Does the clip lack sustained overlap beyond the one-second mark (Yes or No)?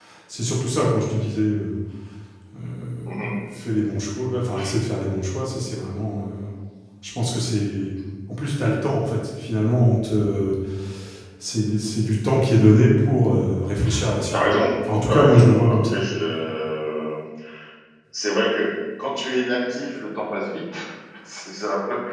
No